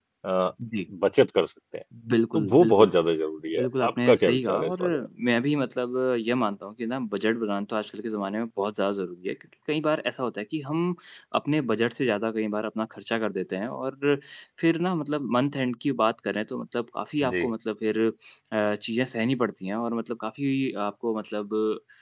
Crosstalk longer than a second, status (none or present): present